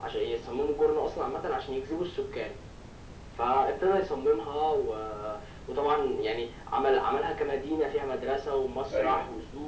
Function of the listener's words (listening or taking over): listening